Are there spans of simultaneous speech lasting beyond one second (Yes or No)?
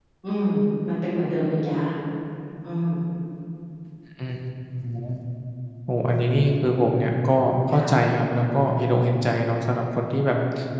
No